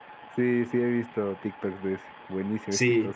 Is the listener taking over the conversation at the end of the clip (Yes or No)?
Yes